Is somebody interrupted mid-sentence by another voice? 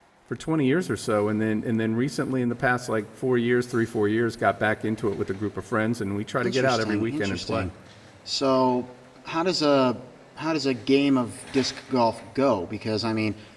Yes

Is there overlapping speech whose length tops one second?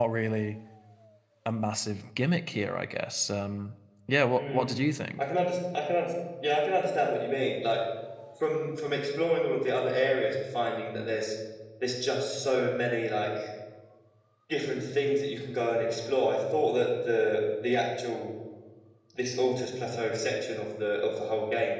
No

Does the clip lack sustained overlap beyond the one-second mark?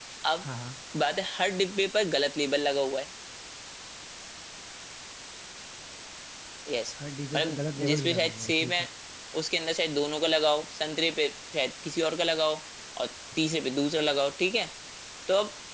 No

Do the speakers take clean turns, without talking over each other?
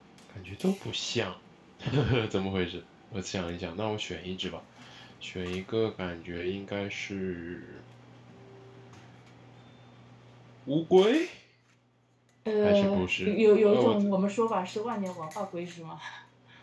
No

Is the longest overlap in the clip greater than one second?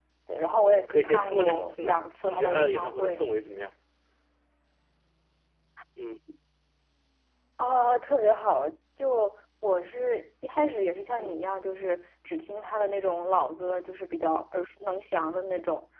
Yes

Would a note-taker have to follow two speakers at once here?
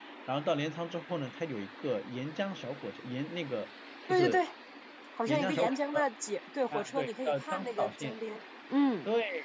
Yes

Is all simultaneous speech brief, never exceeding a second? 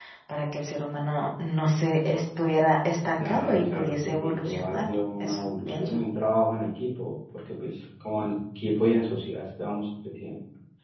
No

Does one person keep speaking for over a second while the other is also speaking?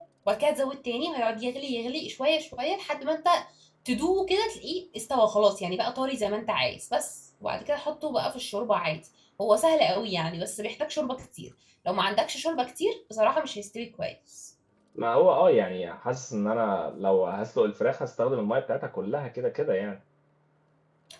No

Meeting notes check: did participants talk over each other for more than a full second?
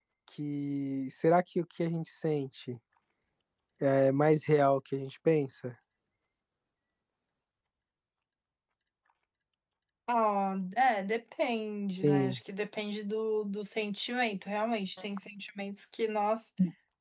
No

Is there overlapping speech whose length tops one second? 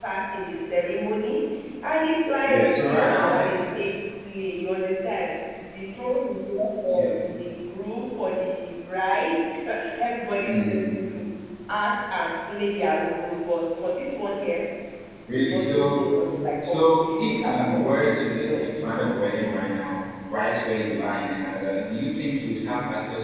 Yes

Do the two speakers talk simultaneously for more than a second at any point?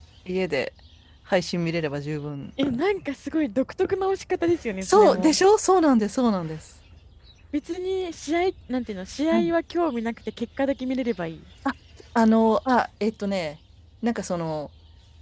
No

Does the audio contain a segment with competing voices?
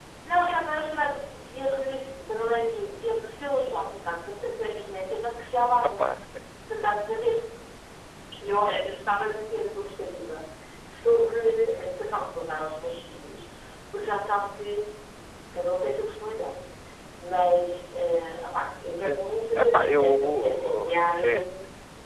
Yes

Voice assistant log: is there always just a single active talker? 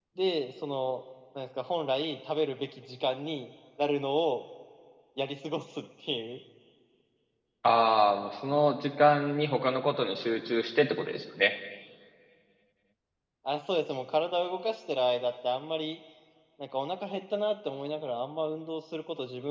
Yes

